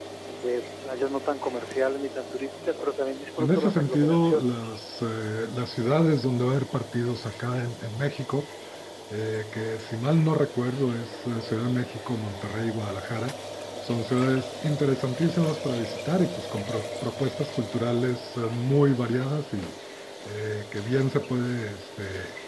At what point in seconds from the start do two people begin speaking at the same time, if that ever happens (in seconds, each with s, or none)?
3.4 s